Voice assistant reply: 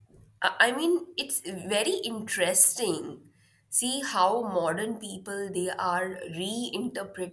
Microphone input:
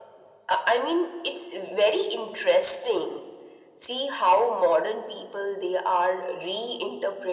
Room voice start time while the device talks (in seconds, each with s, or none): none